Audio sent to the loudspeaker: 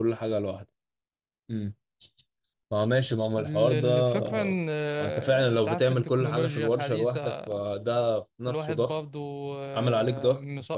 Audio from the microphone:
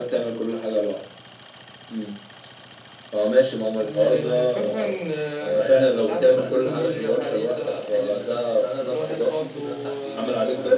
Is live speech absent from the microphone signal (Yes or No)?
No